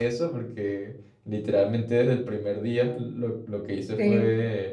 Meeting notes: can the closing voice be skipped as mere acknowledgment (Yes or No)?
Yes